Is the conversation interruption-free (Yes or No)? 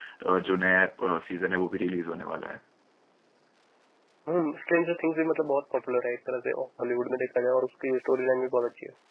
Yes